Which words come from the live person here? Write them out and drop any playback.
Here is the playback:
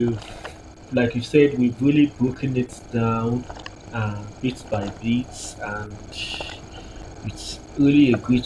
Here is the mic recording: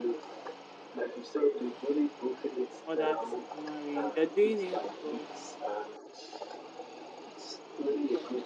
others are marrying. You're doing it because

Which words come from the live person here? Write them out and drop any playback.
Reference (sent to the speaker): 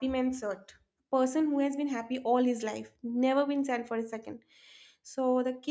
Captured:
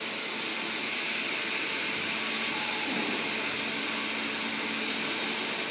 none

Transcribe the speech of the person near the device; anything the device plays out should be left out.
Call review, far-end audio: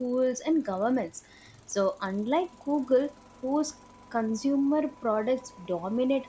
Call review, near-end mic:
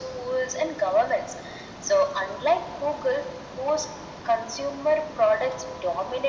none

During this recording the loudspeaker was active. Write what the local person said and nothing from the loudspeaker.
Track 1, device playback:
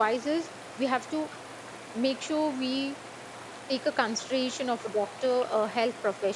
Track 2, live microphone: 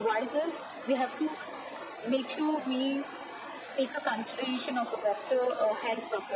none

